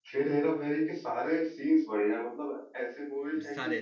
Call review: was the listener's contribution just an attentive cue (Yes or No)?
Yes